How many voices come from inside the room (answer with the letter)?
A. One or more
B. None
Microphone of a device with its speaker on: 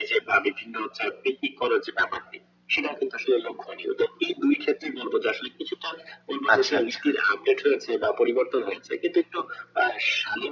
A